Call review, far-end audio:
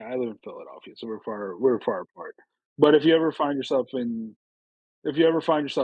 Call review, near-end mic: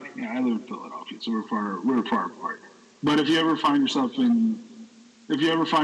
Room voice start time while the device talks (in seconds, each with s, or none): none